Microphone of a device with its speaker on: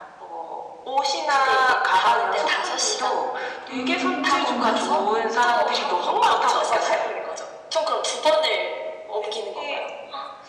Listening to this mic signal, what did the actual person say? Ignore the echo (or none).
아,